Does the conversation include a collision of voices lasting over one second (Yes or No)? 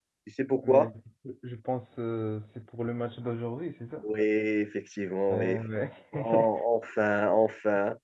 No